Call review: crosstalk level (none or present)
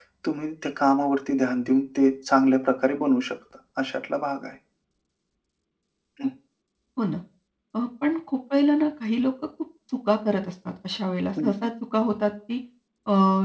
none